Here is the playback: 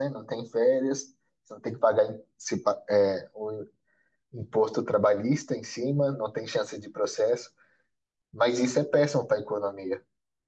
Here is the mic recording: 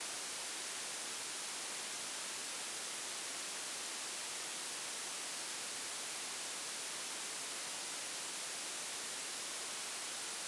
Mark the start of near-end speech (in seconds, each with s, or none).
none